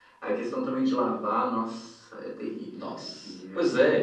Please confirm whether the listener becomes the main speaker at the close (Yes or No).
Yes